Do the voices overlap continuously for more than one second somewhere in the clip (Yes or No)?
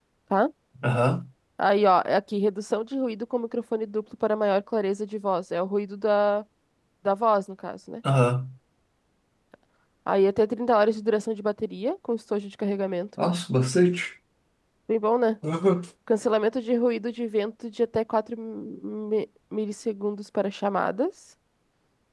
No